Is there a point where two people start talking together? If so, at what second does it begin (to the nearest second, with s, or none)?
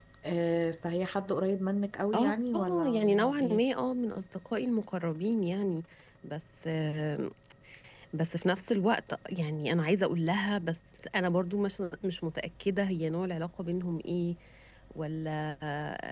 2 s